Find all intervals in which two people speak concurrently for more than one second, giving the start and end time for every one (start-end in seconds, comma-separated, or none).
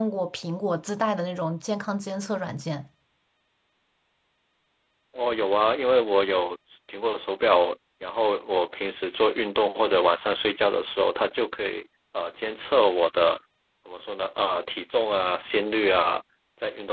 none